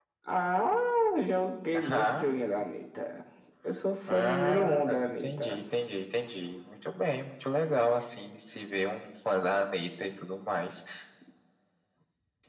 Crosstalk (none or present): present